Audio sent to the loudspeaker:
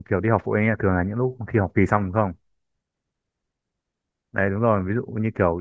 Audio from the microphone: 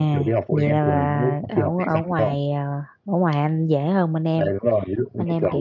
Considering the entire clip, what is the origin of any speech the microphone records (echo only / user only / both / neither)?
both